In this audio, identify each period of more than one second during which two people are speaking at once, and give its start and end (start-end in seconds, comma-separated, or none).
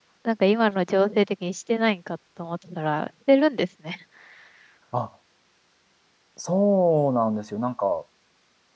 none